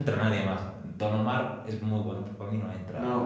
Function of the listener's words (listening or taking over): taking over